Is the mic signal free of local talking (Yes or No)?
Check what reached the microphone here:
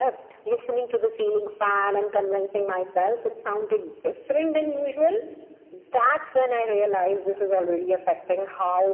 Yes